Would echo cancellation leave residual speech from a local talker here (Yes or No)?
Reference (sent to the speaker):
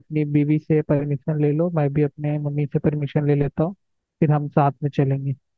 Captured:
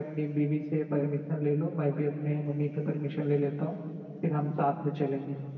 No